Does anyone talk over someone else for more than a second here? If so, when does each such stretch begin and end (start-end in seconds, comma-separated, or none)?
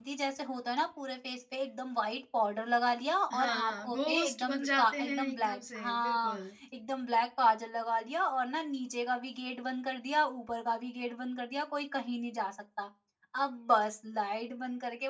3.3-6.4